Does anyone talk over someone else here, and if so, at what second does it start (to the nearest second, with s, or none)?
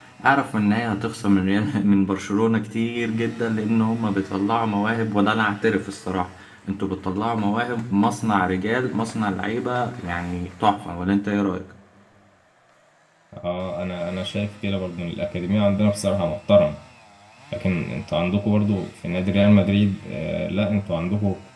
none